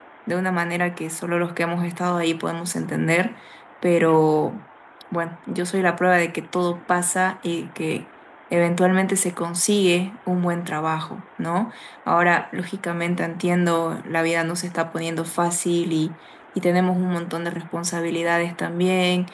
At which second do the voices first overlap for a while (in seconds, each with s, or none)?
none